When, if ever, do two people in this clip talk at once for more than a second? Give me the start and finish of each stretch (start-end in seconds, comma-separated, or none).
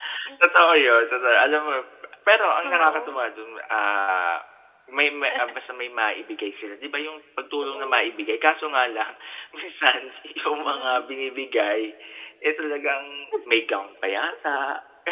none